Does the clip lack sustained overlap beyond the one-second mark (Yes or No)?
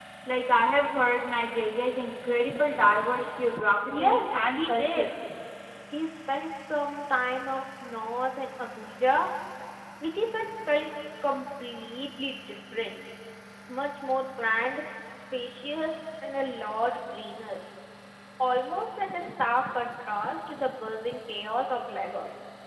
No